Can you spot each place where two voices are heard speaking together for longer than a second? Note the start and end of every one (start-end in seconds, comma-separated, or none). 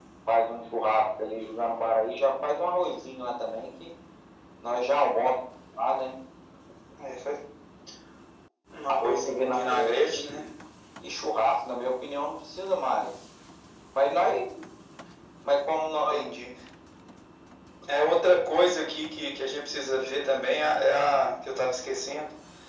9.0-10.5